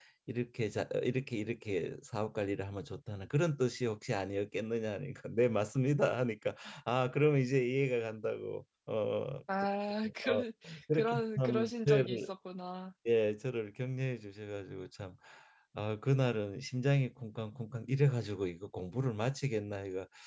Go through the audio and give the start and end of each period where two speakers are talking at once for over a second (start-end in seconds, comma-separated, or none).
10.9-12.3